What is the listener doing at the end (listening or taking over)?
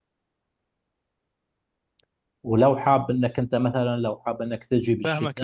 taking over